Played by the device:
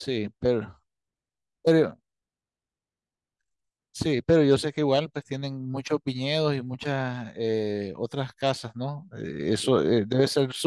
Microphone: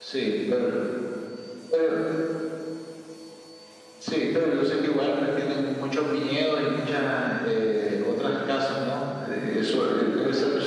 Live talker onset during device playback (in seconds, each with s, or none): 9.7 s